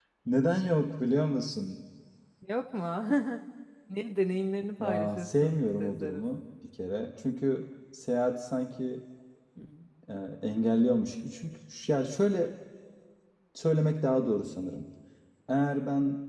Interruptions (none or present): present